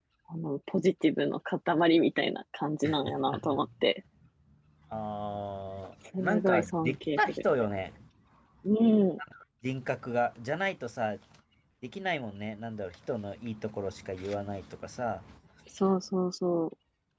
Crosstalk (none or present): present